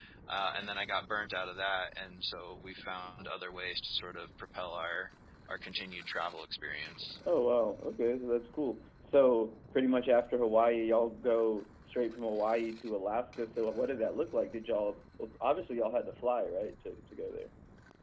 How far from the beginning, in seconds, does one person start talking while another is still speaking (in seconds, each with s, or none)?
none